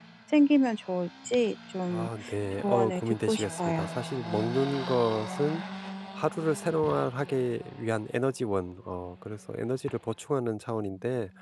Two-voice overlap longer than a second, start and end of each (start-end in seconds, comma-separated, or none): 2.5-3.9